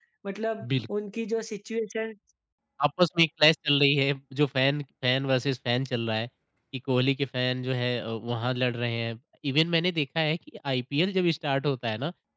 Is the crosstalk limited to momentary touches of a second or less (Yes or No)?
Yes